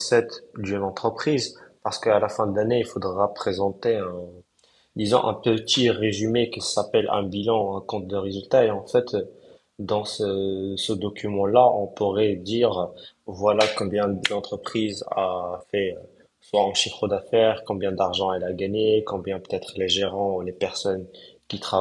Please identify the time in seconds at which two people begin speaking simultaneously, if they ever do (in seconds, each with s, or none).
none